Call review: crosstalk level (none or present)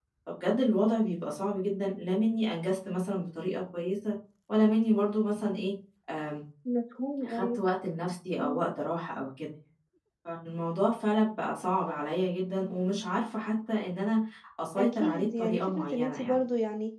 present